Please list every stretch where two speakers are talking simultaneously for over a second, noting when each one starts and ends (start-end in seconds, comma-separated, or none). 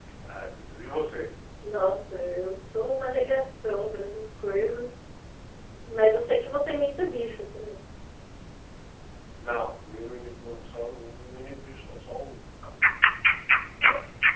none